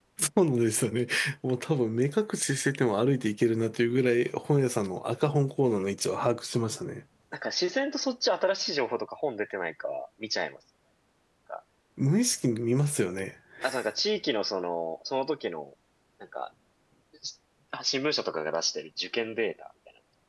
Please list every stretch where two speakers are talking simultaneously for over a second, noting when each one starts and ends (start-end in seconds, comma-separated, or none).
none